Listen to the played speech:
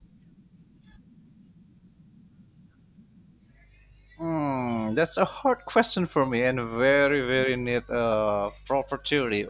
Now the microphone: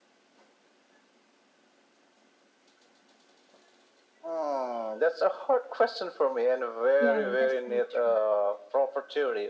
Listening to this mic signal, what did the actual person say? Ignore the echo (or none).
Yeah, yeah, that's very true.